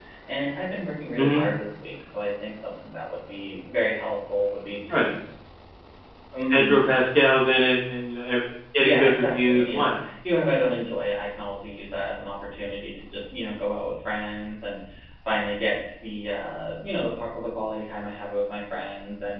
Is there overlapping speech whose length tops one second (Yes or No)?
Yes